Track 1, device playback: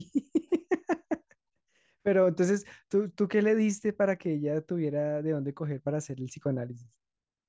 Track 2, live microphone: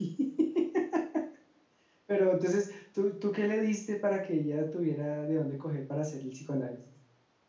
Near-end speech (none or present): none